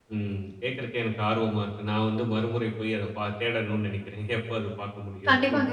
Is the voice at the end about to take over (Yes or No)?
Yes